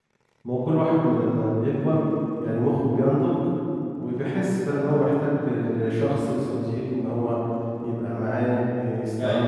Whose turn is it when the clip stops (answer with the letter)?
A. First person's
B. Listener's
A